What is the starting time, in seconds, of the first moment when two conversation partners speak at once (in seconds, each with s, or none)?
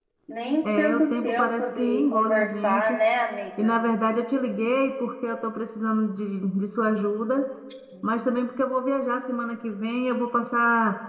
0.6 s